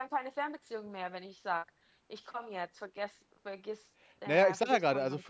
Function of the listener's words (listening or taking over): taking over